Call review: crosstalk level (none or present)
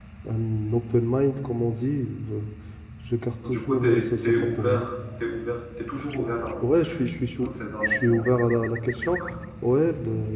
present